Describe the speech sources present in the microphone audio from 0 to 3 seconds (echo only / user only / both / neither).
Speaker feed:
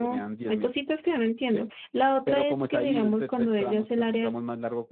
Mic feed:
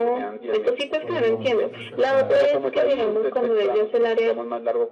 both